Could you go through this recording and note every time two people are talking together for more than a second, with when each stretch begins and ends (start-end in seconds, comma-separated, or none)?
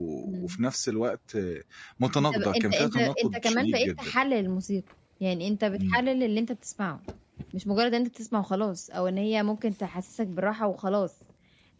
2.2-3.9